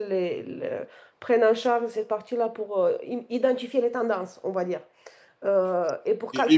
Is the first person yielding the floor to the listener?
Yes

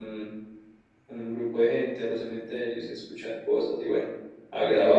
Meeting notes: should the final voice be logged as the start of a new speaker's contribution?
Yes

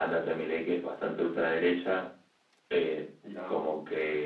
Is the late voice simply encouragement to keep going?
Yes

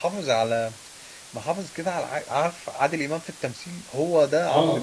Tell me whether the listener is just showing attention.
Yes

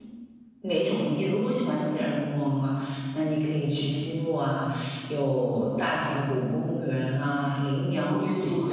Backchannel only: No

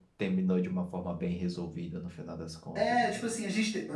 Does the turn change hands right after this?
Yes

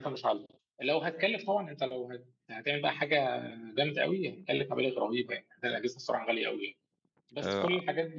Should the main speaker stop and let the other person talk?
No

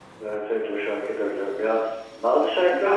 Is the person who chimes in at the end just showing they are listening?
No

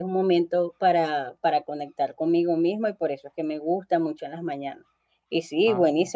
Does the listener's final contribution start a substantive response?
No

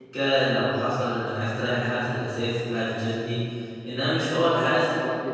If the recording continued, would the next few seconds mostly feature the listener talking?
Yes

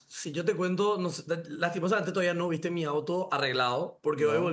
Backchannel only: Yes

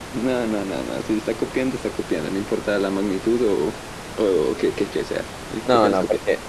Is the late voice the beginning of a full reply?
Yes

